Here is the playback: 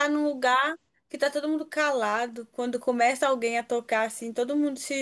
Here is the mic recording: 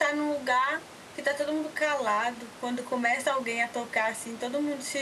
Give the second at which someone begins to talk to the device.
none

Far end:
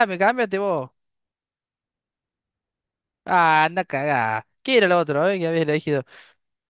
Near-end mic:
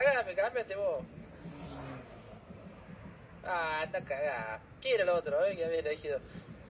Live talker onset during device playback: none

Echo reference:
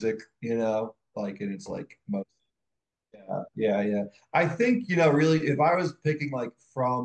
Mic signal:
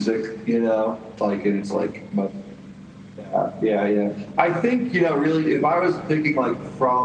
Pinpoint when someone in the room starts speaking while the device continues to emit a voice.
none

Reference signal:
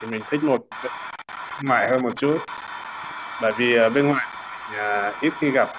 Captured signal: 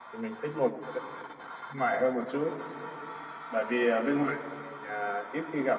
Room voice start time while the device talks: none

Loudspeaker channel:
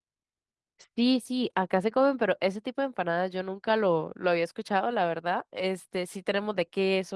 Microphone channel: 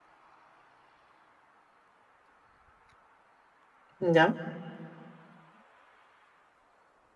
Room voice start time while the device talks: 4 s

